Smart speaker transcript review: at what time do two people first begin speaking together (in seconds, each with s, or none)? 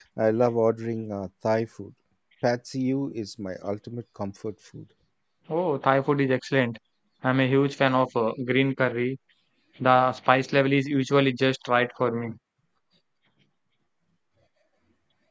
none